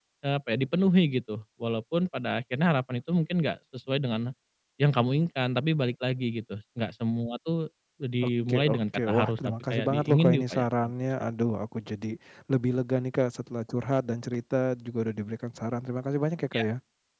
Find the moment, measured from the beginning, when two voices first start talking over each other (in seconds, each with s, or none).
8.5 s